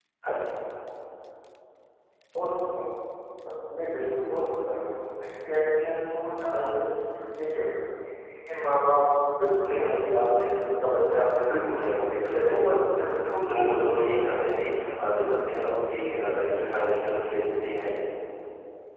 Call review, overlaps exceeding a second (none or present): present